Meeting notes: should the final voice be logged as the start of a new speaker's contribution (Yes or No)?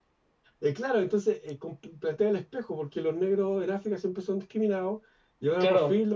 No